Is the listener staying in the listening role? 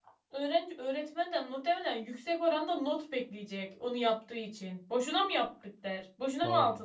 No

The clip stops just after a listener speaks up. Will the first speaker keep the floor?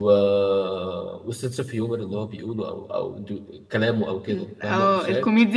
No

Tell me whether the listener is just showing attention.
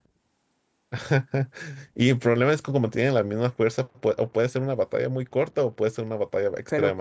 No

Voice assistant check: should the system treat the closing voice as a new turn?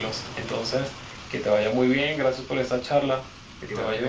Yes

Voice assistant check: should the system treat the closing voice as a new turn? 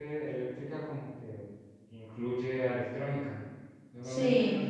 No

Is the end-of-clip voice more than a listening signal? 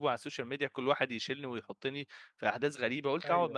No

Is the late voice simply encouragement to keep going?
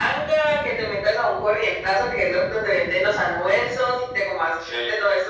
Yes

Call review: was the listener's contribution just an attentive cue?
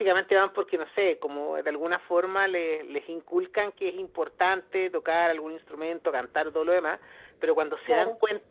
Yes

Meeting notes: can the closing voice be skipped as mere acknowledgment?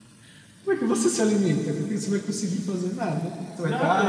Yes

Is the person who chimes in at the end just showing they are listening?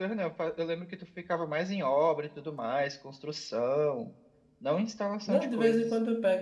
No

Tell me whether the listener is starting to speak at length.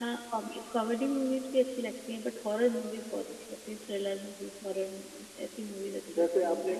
Yes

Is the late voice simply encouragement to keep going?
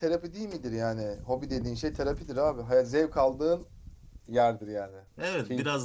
No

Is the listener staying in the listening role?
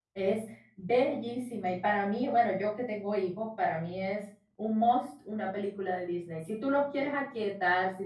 Yes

